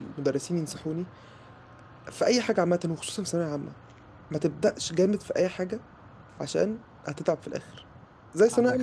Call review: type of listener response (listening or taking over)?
listening